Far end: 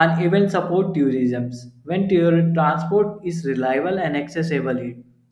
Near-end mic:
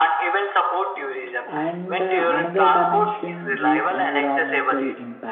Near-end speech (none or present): present